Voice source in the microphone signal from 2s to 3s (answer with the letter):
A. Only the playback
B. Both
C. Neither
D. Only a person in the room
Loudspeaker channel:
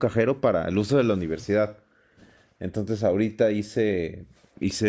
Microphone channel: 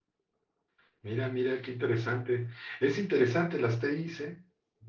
D